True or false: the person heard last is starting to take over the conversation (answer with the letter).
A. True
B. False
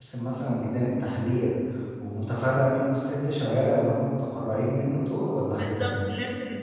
A